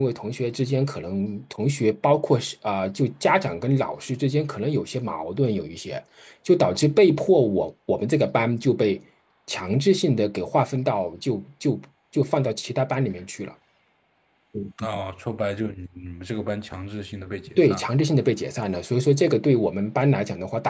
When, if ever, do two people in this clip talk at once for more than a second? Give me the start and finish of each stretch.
none

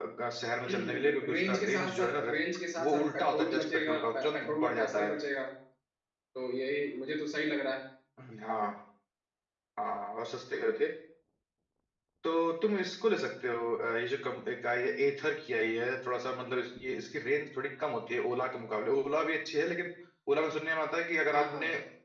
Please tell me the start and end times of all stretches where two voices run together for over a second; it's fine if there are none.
0.7-2.3, 2.9-5.1

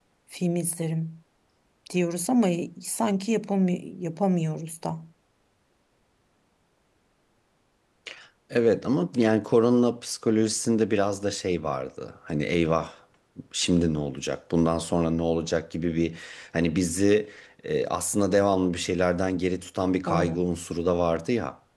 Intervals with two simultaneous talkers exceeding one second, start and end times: none

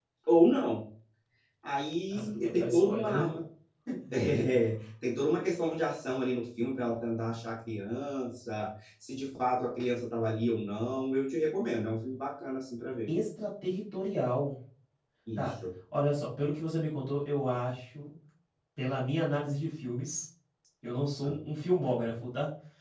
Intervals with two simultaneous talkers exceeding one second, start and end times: 2.1-3.3

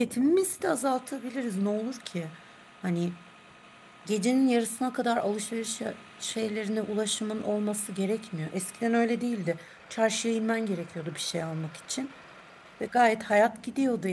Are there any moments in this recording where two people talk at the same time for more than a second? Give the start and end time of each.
none

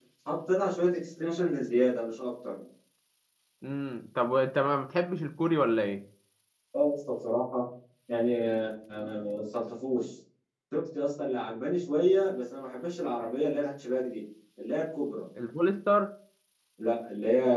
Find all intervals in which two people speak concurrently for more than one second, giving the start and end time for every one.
none

